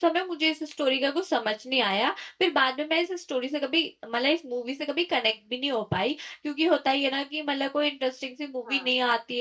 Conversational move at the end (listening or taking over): listening